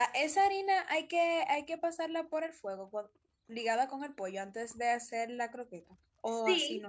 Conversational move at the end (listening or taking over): taking over